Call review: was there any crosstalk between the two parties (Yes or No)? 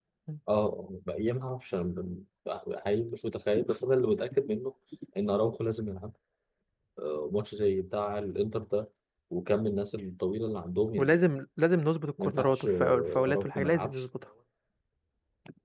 Yes